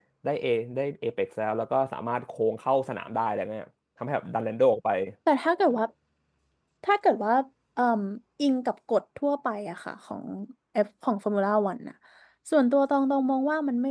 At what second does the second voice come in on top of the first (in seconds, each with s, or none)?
none